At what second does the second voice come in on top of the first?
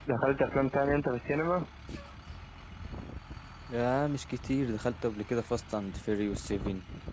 none

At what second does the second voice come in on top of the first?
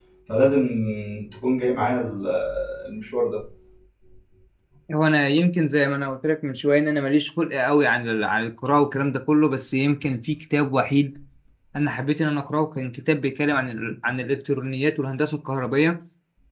none

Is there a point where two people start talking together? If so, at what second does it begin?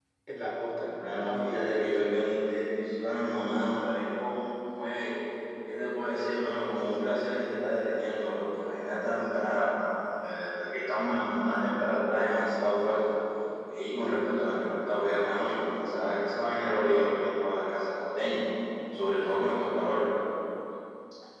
0.8 s

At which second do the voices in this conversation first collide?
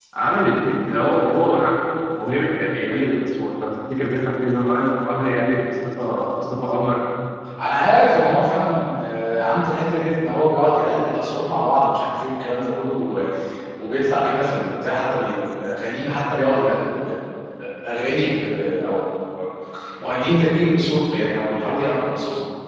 none

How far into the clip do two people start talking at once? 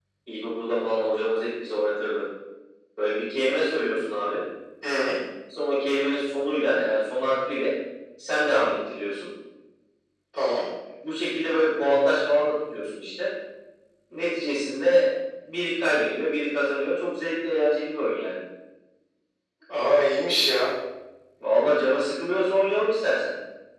none

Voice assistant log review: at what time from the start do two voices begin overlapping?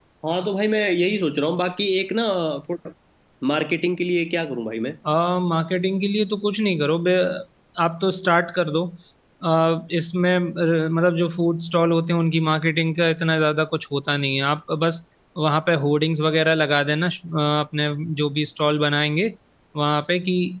none

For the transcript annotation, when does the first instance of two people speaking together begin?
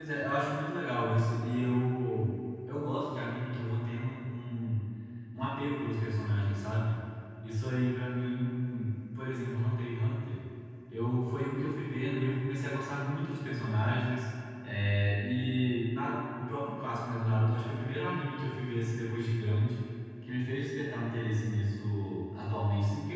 none

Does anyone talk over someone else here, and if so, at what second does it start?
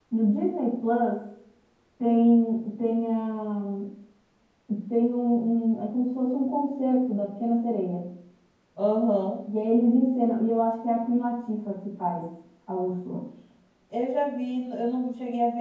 none

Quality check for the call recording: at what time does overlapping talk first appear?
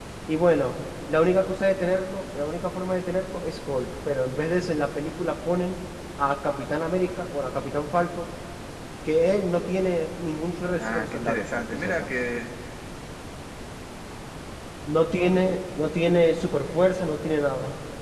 10.8 s

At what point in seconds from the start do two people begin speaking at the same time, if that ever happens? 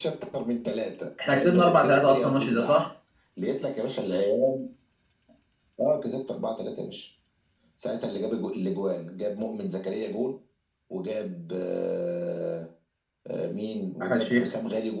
1.3 s

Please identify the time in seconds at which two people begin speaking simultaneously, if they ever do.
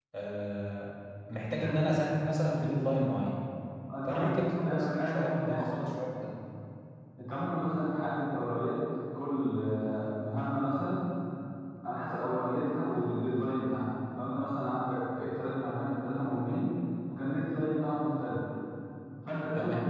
4.1 s

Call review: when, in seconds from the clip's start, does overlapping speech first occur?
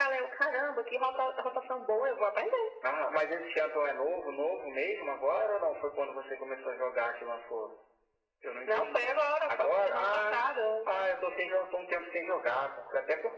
8.7 s

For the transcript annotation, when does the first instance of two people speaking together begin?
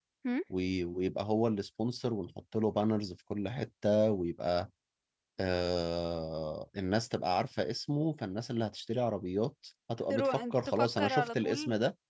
10.1 s

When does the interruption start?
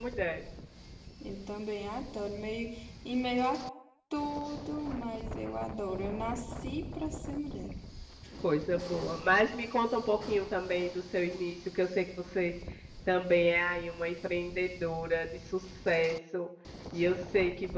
none

